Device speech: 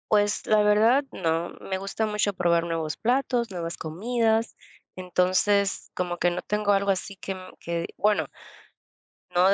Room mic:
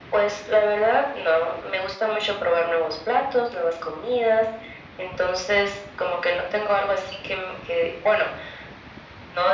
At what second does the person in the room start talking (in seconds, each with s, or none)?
none